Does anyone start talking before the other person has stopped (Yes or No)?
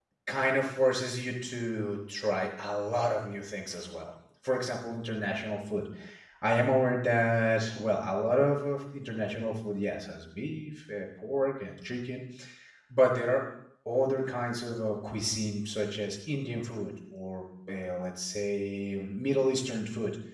No